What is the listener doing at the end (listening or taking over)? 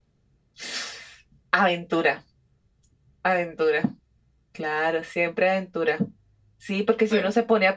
listening